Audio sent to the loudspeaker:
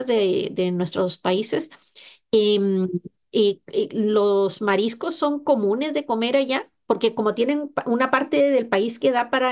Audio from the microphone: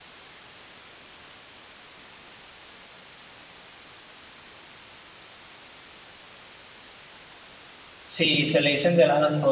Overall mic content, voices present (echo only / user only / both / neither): user only